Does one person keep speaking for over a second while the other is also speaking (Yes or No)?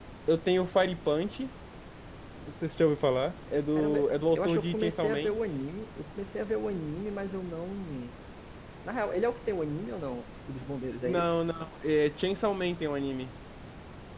Yes